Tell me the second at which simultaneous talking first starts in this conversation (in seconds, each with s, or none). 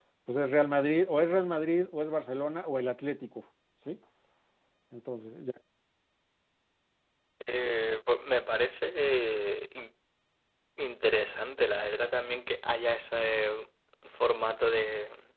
none